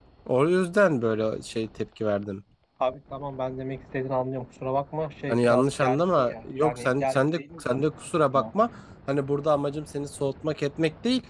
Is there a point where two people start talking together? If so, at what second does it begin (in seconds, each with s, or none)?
5.3 s